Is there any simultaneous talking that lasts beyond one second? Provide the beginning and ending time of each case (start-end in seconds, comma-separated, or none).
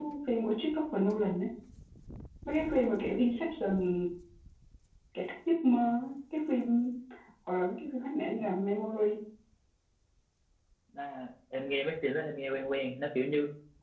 none